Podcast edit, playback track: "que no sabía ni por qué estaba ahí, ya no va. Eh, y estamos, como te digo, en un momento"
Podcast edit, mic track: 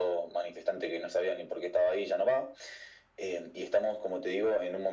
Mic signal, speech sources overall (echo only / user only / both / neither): echo only